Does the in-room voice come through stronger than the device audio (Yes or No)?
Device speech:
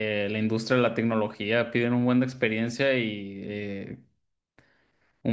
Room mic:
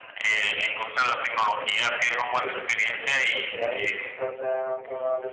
No